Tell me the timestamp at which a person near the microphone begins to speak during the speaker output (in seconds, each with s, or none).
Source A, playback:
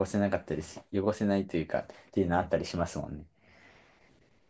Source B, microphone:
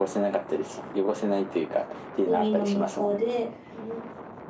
2.2 s